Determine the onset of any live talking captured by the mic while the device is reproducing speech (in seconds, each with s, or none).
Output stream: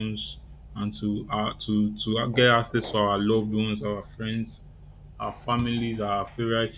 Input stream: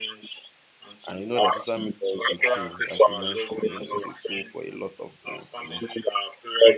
1.1 s